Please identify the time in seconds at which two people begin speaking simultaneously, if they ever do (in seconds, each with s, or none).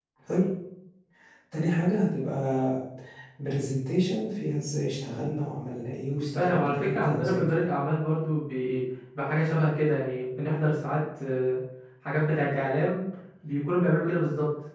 6.4 s